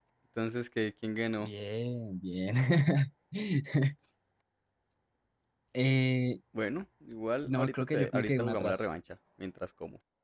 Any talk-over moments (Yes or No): Yes